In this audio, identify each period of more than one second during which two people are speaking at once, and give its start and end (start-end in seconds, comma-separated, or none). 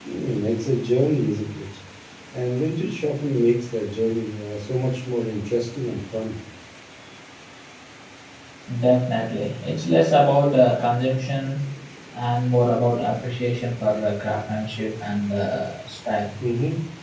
none